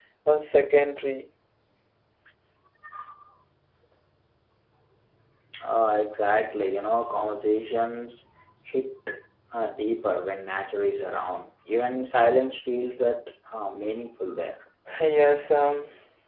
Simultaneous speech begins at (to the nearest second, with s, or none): none